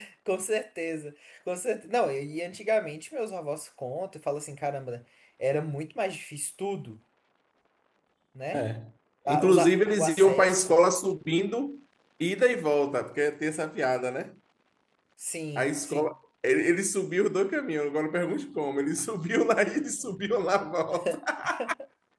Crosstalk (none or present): present